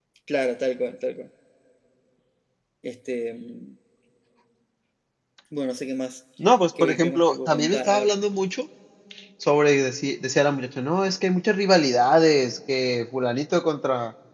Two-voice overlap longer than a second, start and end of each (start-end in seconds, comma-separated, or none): 6.8-8.1